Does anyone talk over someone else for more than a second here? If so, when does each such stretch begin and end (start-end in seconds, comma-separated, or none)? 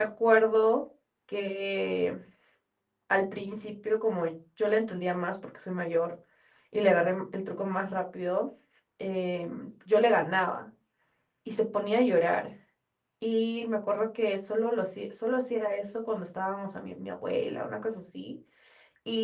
none